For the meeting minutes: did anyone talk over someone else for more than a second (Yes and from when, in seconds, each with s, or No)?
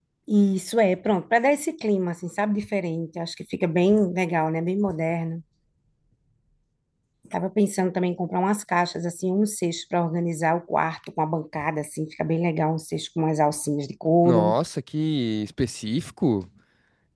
No